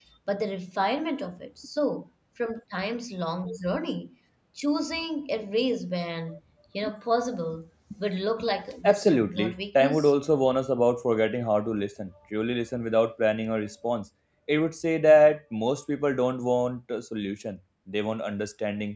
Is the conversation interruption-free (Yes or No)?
No